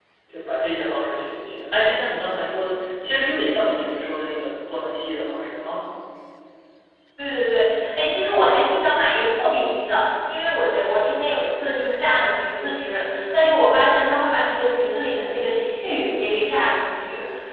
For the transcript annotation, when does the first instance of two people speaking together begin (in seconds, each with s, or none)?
none